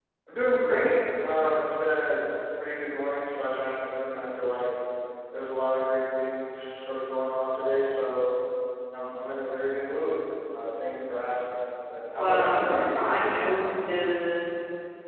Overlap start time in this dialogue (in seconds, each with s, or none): 12.2 s